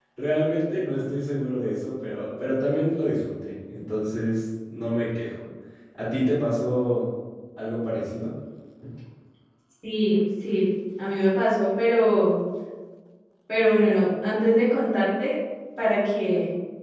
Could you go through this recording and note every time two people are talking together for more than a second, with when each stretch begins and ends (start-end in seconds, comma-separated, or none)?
none